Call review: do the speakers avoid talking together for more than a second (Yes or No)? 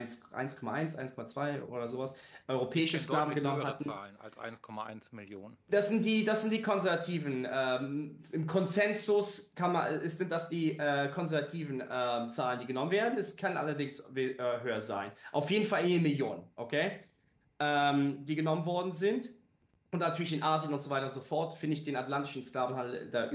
No